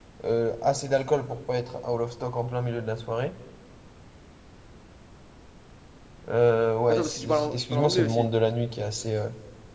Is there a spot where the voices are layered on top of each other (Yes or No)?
Yes